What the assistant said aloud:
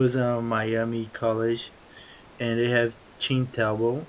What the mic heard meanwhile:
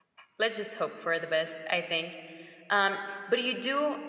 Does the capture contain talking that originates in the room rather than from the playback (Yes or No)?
Yes